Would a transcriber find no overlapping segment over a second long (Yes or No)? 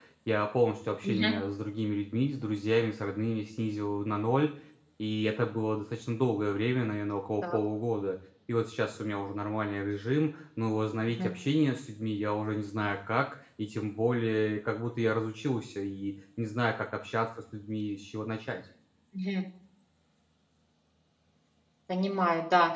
Yes